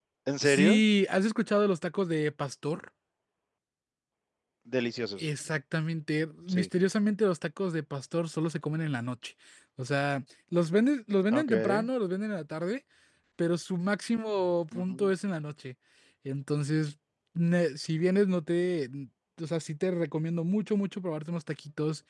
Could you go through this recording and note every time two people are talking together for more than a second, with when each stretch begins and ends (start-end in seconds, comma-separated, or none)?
none